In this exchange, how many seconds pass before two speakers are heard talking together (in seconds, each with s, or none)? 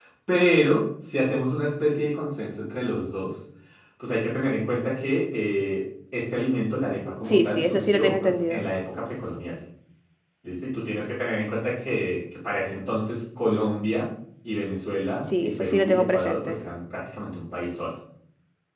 7.3 s